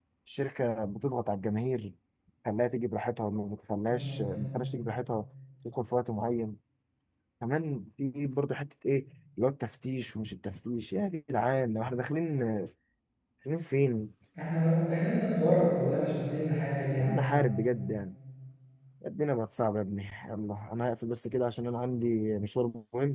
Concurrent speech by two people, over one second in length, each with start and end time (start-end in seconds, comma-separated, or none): none